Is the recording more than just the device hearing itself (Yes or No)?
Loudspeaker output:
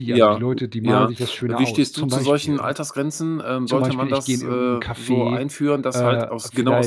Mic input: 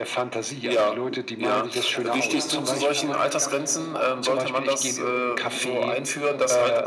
Yes